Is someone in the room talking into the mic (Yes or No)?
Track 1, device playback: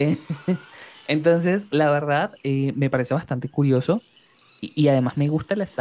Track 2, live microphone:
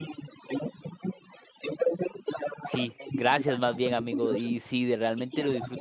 Yes